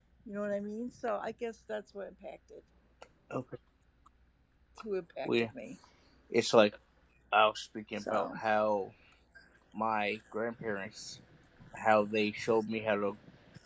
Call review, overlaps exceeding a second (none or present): none